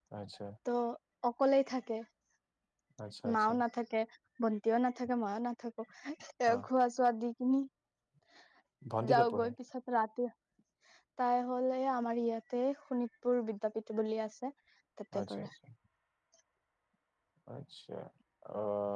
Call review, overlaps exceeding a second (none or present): none